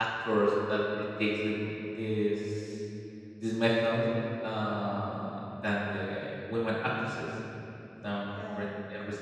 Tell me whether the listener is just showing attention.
Yes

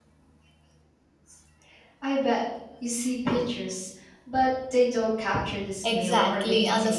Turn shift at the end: Yes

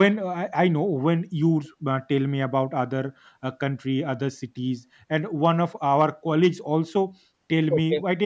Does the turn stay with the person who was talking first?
Yes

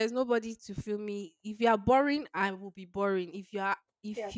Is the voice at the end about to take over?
No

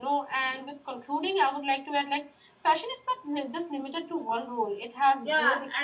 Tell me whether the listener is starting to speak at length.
Yes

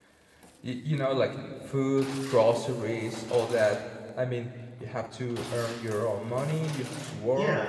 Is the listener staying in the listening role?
No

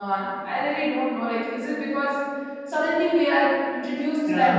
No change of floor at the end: Yes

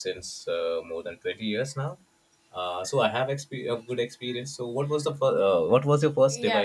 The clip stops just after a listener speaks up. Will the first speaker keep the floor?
No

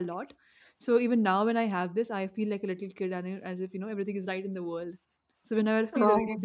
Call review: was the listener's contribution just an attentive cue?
Yes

